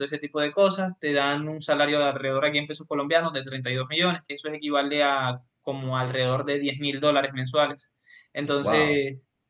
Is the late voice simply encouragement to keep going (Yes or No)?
Yes